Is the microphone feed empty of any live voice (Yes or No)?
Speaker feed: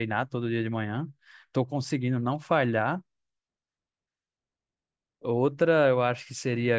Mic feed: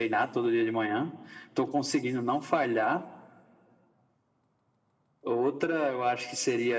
Yes